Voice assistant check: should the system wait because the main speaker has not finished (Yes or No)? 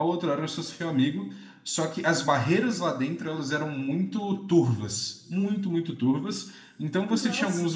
Yes